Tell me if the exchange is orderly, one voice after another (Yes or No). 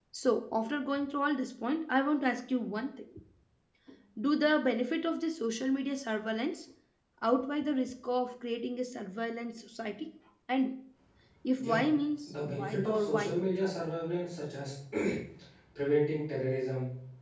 No